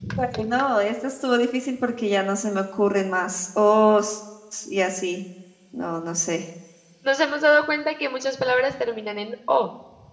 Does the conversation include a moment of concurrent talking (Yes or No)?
No